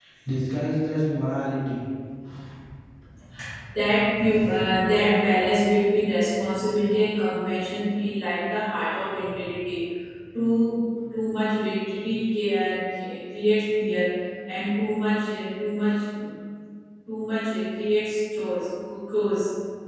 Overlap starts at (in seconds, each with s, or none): none